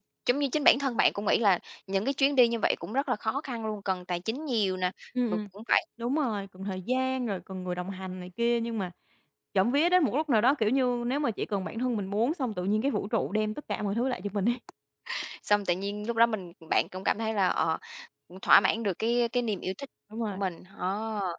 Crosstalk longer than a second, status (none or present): none